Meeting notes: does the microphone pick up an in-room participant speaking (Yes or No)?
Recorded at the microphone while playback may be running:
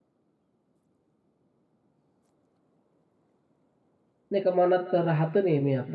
Yes